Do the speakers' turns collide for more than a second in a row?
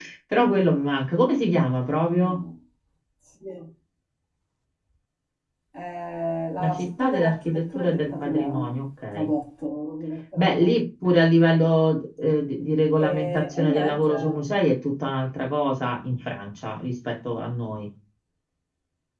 Yes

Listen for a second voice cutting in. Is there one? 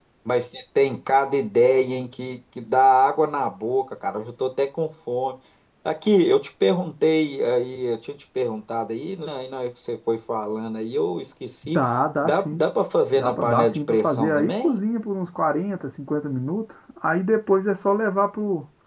Yes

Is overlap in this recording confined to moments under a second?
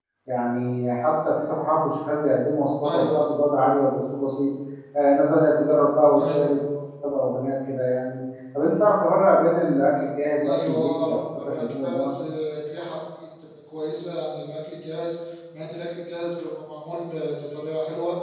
No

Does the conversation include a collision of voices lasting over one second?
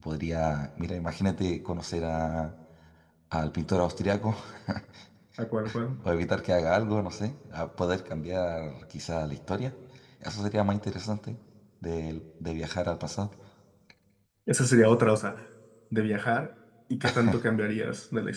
No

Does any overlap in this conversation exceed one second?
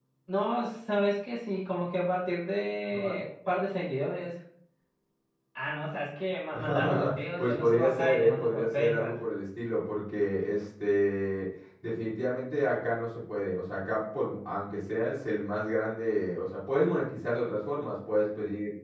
Yes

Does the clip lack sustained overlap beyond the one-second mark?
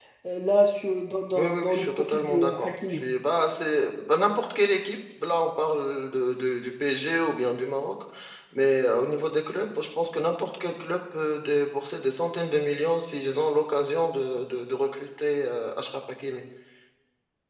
No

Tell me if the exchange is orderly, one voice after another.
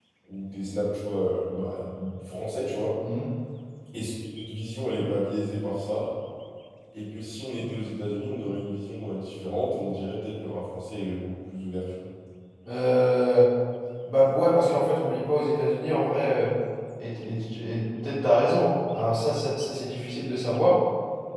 Yes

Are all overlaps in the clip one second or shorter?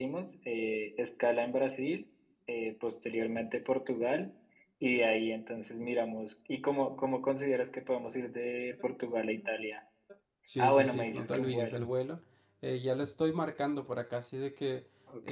No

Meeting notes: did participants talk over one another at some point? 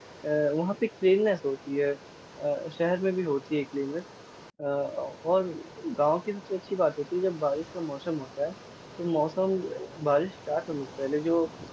No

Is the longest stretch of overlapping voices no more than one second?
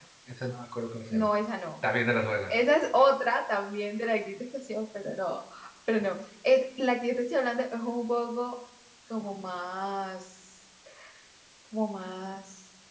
Yes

